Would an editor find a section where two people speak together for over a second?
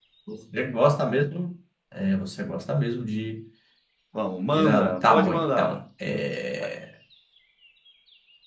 Yes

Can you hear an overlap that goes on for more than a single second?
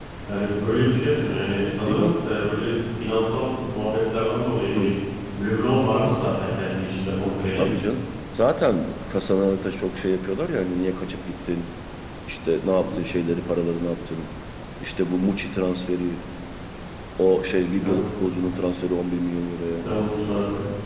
No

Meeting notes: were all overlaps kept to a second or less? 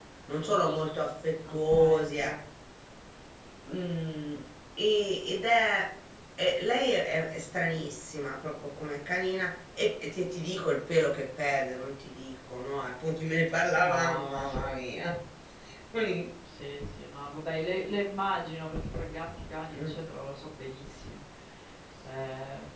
No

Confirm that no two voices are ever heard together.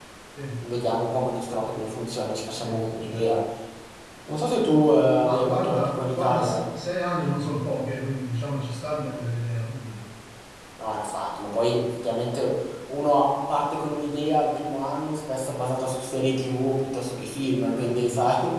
No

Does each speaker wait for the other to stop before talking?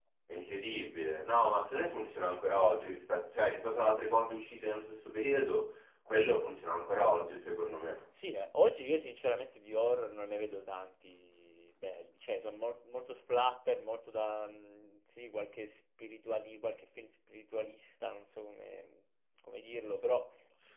Yes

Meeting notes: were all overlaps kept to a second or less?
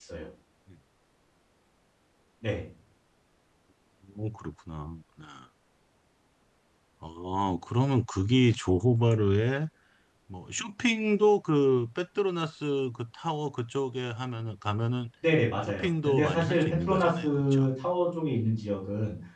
No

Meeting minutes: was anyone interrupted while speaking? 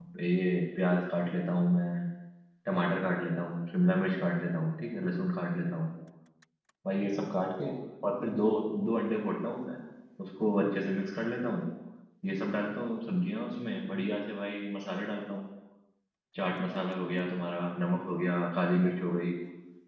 No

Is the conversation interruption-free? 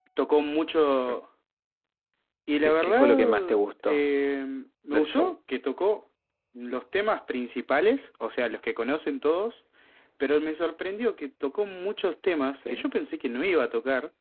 No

